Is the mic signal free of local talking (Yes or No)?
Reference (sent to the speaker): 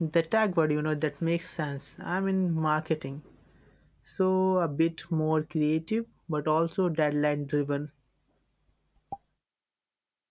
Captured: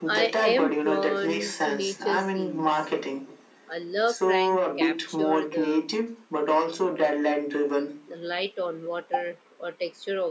No